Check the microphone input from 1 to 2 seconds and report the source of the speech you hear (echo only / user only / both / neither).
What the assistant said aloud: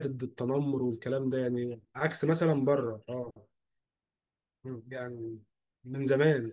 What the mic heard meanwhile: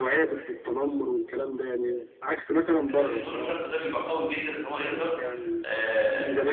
echo only